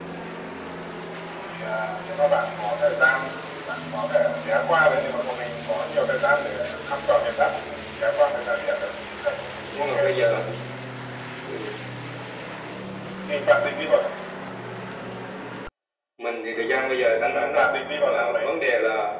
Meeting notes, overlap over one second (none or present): present